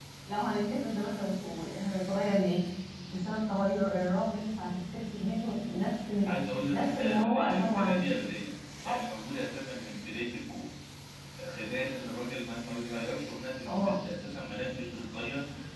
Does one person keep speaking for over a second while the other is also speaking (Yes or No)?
Yes